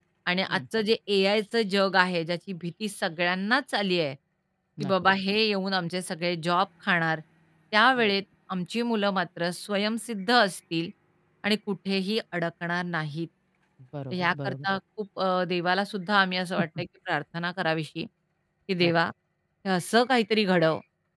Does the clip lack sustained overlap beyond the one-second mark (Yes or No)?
Yes